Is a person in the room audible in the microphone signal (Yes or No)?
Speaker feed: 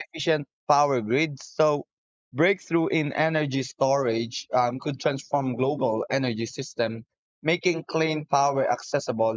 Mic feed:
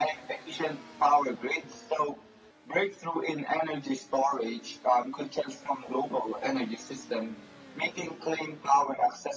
No